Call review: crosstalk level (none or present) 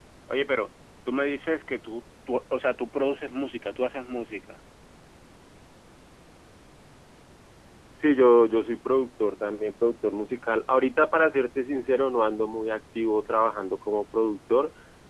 none